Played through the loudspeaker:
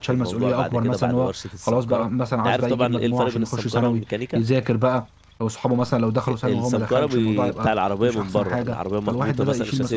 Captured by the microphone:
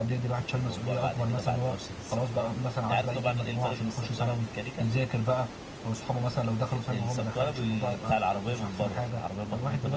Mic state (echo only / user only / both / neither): echo only